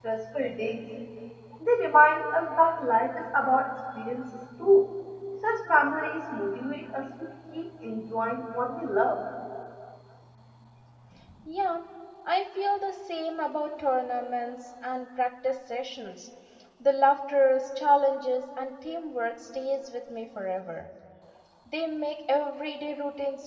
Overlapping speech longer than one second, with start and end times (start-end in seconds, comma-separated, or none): none